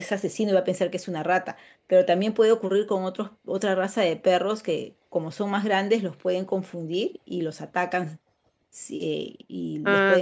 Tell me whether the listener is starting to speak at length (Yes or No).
Yes